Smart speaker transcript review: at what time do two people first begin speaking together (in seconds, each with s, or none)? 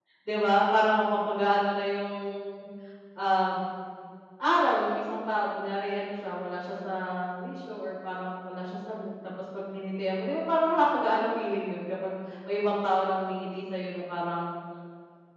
none